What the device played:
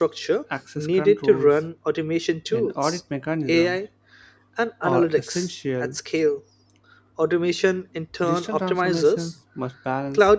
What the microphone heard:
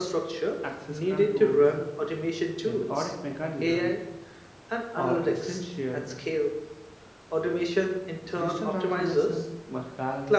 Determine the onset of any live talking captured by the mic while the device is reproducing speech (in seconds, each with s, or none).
none